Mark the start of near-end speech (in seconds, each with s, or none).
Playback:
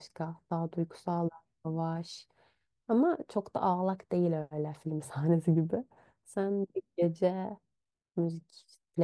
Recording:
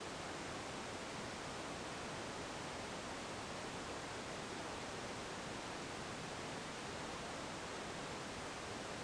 none